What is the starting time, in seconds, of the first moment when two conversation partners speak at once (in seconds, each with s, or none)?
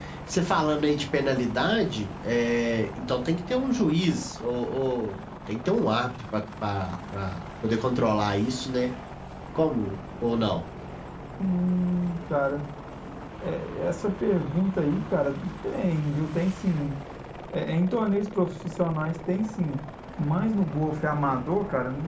none